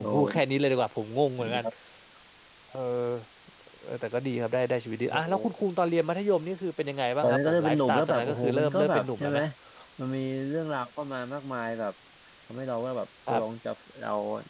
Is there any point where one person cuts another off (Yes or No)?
Yes